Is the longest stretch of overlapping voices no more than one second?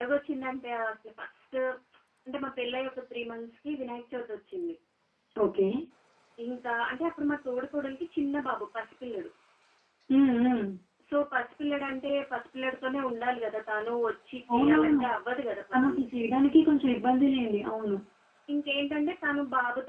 Yes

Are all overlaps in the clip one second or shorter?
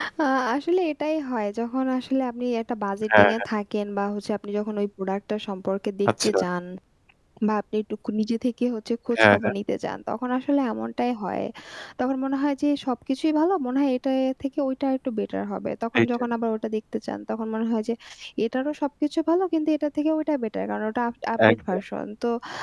Yes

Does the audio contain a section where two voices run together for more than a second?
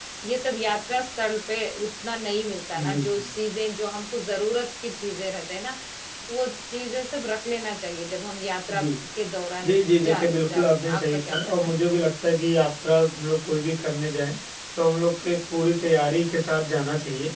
Yes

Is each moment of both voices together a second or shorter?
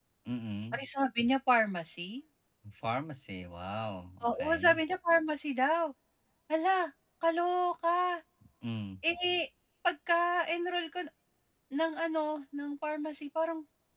Yes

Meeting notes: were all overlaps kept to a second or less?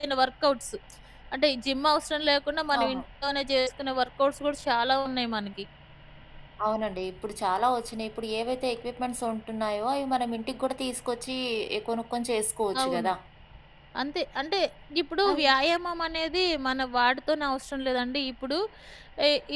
Yes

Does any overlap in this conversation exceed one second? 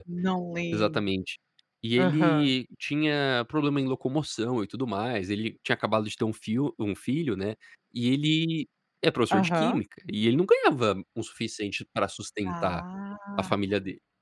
No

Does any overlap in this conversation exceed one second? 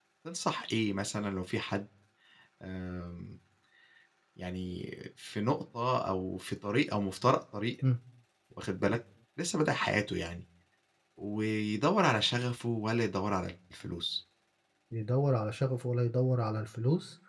No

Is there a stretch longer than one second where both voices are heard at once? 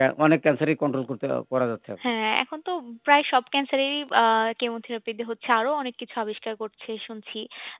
No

